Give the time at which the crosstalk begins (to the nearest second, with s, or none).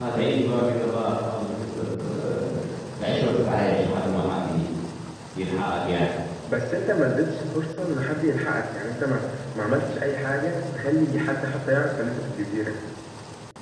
none